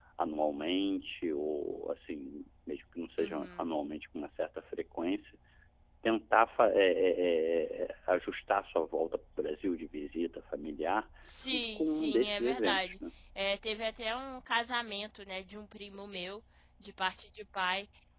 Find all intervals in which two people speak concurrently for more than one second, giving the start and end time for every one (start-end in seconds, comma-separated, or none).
11.5-12.9